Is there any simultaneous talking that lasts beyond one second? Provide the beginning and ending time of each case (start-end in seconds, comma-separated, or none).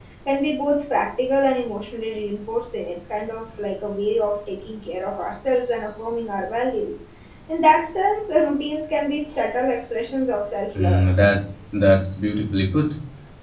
none